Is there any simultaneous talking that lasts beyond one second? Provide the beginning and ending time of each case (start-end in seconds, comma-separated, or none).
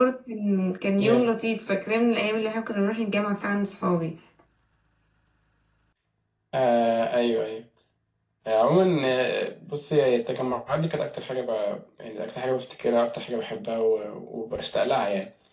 none